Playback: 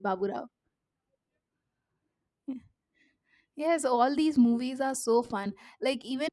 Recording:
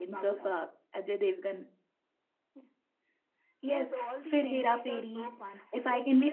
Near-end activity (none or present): present